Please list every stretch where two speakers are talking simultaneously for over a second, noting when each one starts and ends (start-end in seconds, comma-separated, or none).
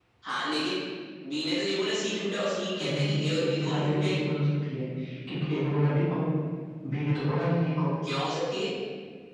2.8-4.2